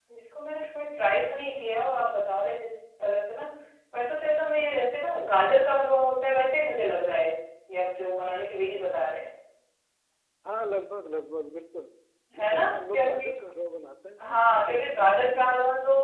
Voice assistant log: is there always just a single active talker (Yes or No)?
No